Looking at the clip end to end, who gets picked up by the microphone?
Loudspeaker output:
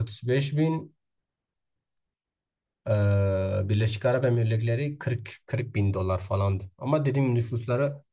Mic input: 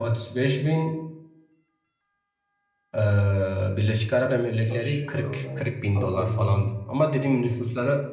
both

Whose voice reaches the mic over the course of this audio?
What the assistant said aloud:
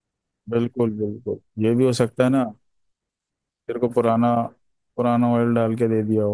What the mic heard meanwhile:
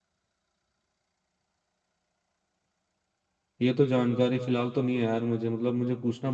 user only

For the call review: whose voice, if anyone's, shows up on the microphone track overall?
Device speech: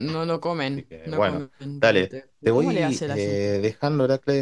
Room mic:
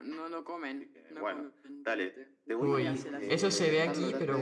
both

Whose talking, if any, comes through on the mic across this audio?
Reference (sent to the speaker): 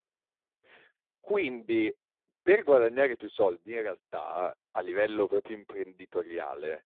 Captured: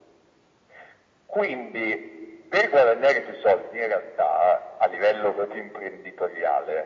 echo only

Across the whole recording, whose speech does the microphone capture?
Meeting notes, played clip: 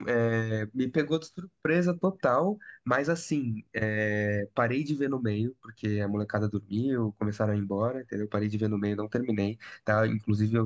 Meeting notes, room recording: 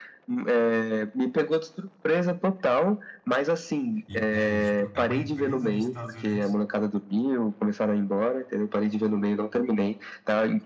both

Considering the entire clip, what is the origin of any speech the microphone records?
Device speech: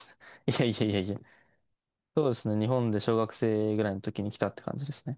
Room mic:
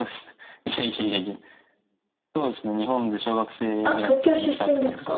both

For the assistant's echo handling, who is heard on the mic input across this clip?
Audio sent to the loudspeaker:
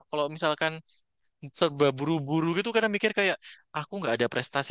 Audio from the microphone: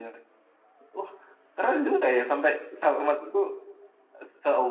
user only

